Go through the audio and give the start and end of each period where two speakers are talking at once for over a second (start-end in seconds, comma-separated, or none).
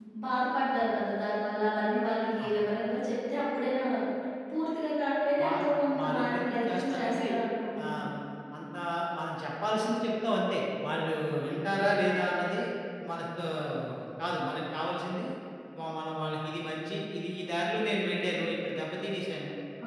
6.0-7.3